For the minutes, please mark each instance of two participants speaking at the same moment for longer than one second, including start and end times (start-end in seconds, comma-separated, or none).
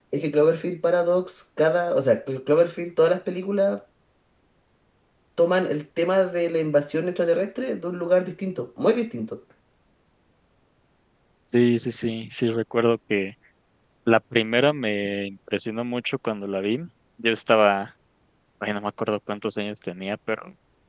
none